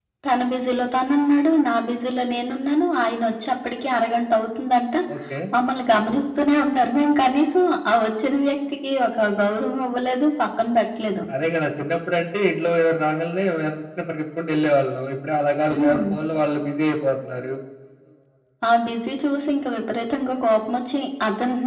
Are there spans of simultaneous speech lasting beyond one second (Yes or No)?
No